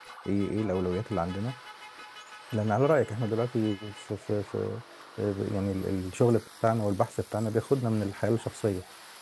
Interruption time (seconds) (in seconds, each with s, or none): none